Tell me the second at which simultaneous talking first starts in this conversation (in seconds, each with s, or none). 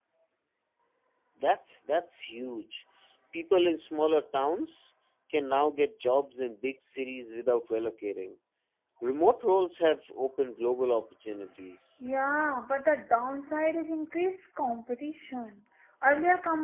none